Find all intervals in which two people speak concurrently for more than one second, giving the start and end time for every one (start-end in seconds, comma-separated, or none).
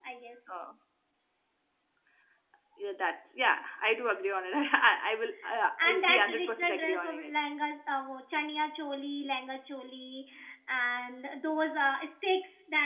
5.8-7.3